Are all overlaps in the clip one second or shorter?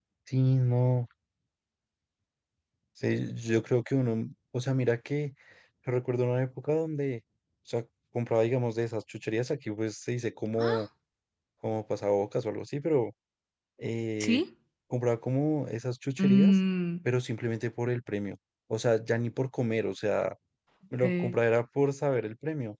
Yes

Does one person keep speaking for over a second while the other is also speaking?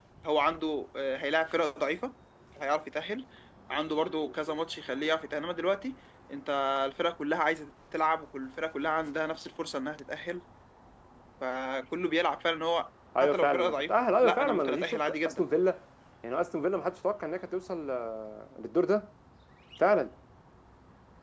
Yes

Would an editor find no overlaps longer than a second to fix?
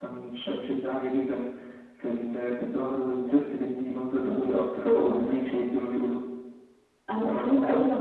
No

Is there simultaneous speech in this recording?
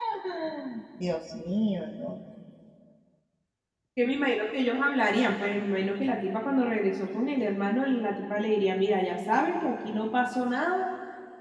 No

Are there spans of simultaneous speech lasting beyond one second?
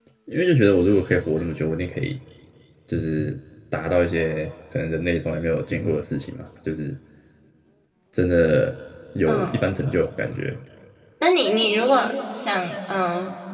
No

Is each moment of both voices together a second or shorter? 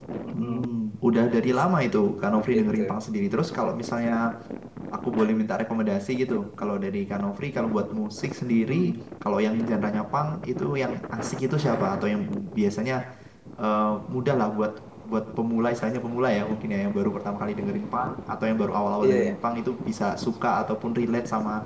Yes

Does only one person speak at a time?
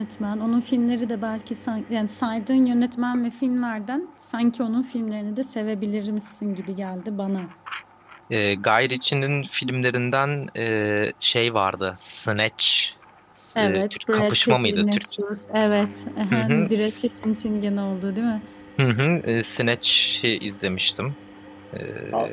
No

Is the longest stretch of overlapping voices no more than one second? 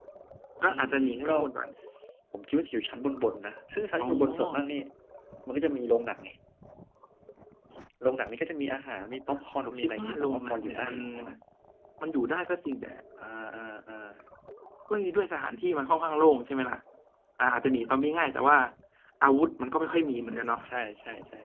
No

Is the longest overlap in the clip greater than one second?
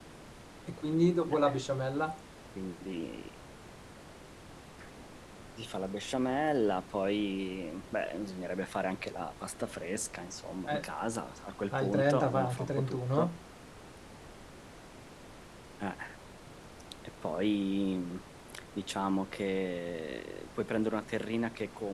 Yes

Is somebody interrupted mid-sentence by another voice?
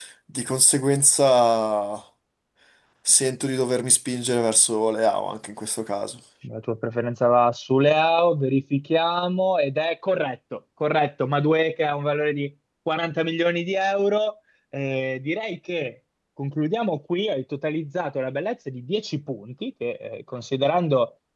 No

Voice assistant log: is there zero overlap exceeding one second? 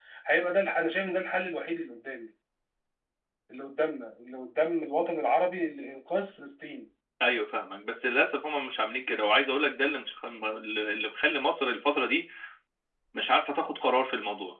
Yes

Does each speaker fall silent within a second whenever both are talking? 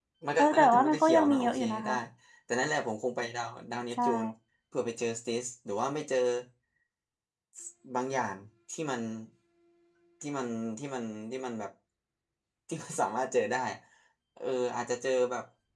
No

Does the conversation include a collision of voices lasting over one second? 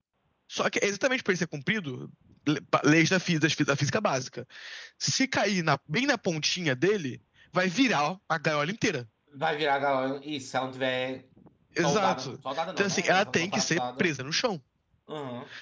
Yes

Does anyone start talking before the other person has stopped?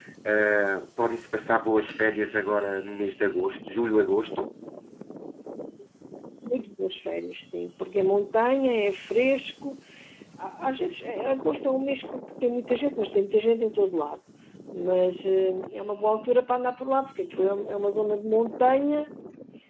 No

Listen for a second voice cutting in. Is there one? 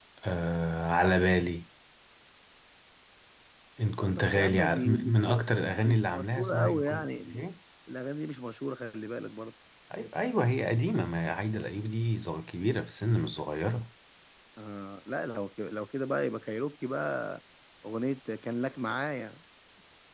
Yes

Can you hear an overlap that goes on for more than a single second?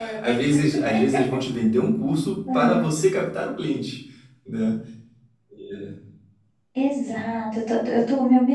No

